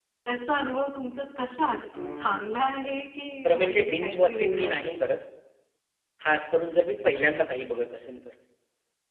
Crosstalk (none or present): present